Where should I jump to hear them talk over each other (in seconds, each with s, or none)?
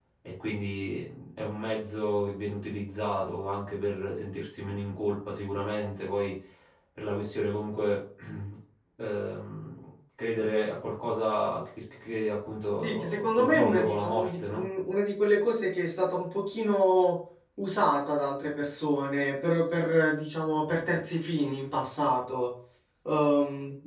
12.8 s